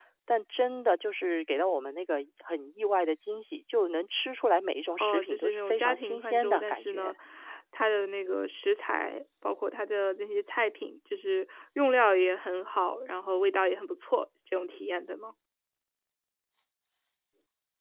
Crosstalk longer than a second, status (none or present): present